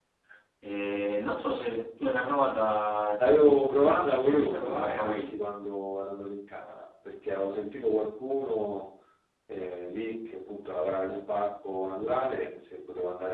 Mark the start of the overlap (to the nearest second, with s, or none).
3 s